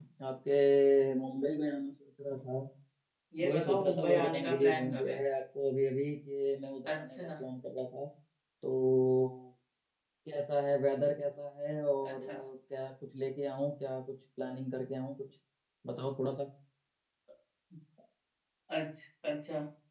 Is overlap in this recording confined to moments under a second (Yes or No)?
No